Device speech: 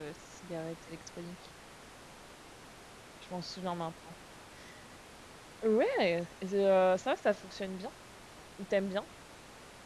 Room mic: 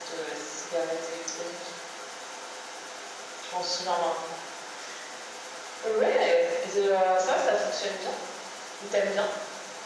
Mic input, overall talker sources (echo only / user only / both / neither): echo only